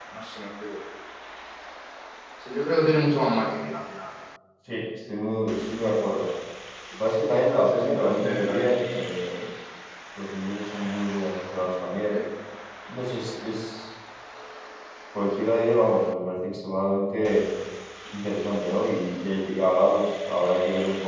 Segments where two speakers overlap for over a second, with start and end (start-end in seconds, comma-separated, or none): 7.5-8.9